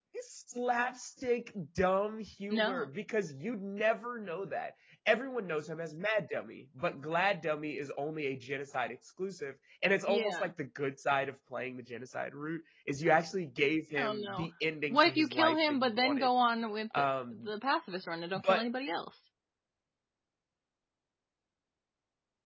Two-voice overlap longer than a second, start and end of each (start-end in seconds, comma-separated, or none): 14.9-16.3